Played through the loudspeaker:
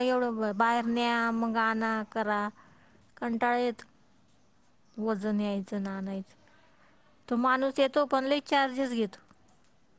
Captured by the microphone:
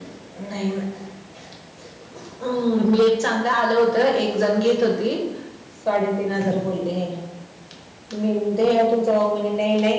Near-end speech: present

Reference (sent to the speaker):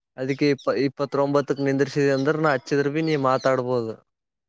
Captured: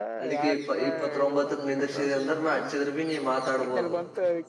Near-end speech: present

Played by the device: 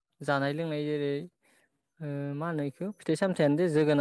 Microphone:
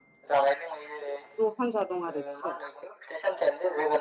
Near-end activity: present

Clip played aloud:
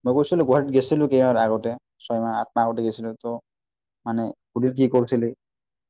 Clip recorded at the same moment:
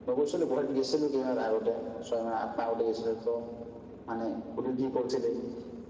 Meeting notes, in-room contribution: none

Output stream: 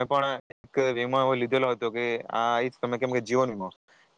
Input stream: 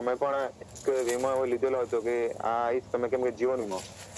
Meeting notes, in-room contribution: none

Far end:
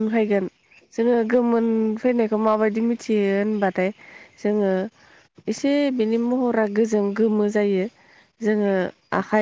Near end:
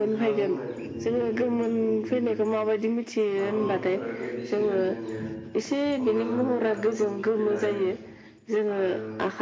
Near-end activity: present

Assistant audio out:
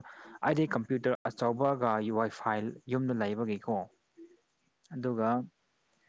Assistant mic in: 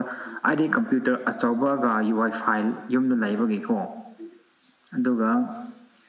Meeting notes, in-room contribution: none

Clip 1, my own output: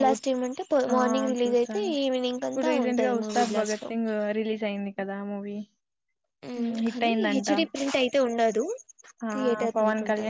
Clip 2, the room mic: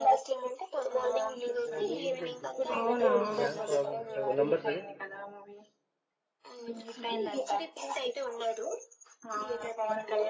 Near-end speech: present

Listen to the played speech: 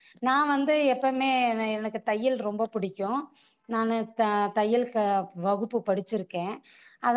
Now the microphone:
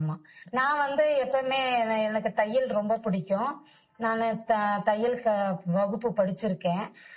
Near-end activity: none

